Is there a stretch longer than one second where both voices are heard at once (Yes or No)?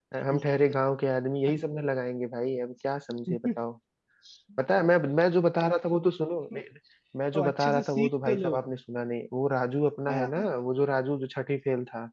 Yes